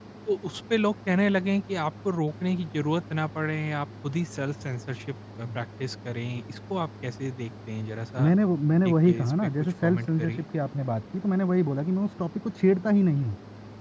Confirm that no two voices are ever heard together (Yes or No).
No